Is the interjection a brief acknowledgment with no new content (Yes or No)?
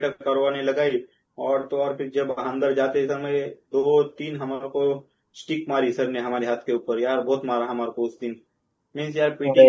Yes